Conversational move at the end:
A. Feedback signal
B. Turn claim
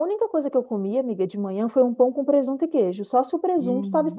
B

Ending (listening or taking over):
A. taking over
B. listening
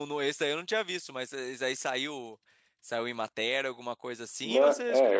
A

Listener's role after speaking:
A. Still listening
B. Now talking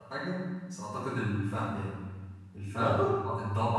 A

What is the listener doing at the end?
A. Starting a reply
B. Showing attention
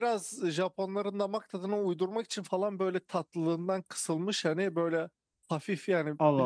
B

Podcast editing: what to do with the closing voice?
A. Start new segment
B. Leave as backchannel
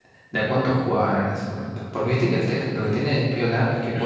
B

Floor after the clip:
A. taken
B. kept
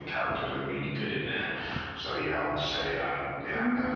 A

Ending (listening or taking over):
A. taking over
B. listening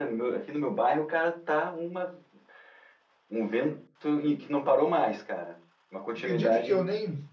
A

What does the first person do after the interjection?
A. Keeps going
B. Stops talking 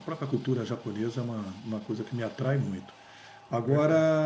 A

